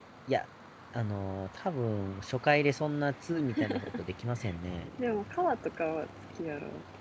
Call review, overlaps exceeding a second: none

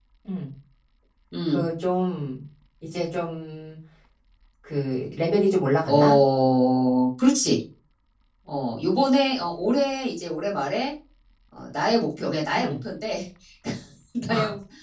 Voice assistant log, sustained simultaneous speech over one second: none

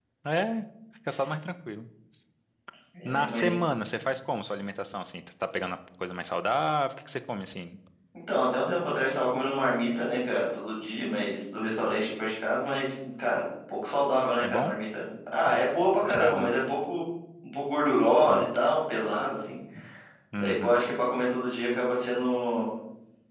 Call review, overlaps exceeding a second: none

